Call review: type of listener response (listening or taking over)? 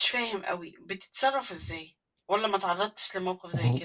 taking over